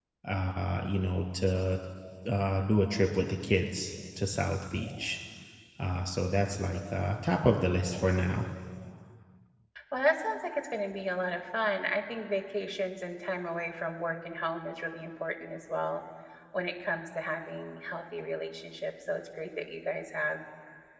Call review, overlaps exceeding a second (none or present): none